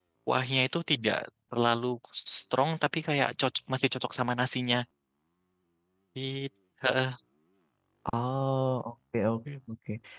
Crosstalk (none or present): none